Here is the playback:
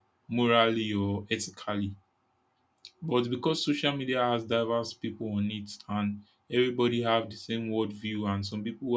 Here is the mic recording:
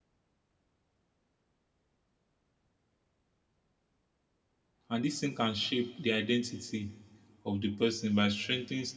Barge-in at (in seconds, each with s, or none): 4.9 s